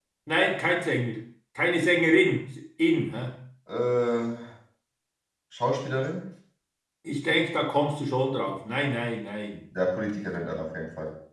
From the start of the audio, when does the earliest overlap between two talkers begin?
none

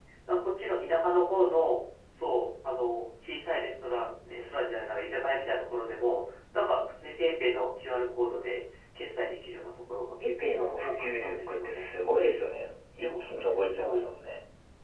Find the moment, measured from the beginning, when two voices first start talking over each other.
10.2 s

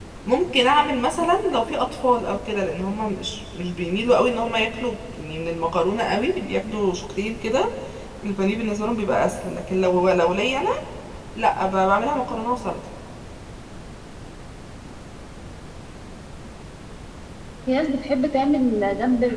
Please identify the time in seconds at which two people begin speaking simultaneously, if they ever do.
none

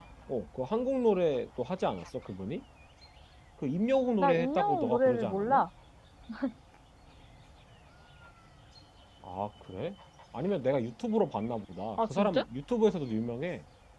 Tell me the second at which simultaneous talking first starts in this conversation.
4.2 s

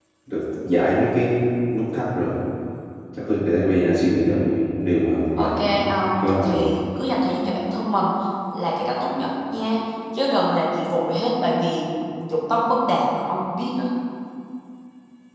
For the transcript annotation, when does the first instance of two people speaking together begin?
5.4 s

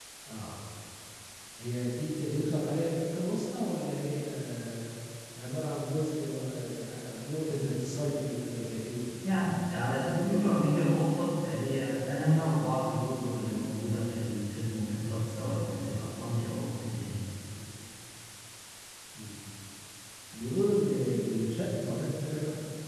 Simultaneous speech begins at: none

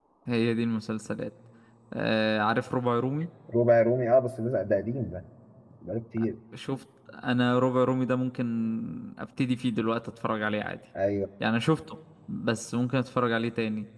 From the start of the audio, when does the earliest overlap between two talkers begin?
none

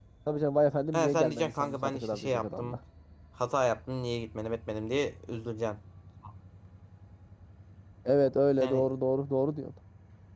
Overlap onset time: 0.9 s

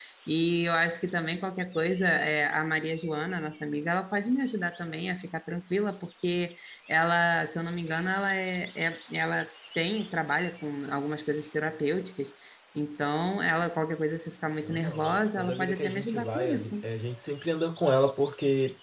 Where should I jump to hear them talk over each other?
14.6 s

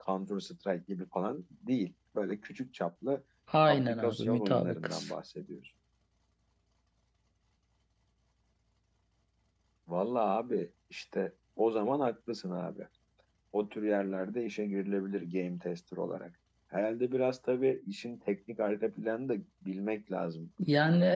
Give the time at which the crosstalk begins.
3.7 s

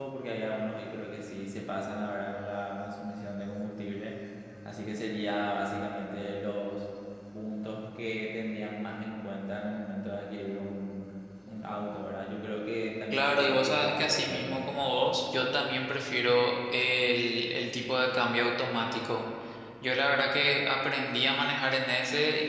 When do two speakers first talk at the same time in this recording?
13.1 s

